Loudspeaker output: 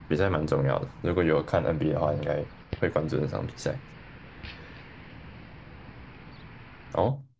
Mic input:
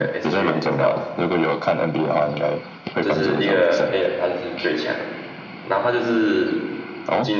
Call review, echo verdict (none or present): present